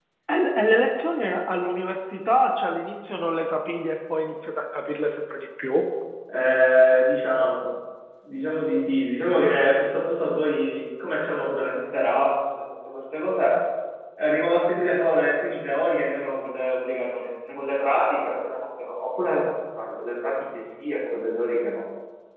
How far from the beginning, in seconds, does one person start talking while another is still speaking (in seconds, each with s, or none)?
none